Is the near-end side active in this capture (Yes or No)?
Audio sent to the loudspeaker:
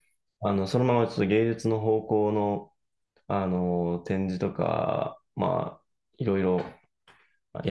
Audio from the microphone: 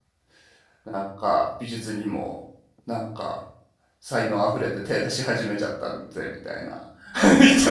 Yes